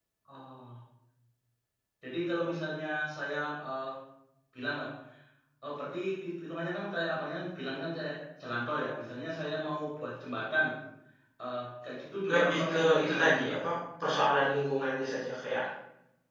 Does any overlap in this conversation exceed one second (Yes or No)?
Yes